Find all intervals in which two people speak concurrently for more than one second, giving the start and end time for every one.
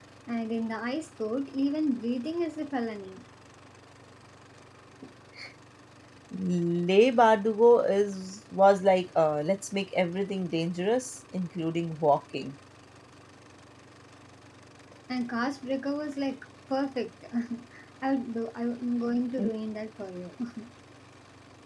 none

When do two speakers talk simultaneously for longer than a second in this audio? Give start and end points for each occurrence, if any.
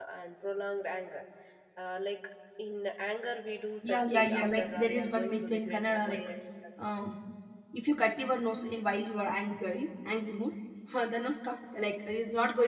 3.8-6.2

